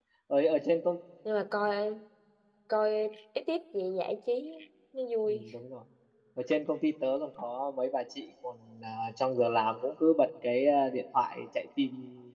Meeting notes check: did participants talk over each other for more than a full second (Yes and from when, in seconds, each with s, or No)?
No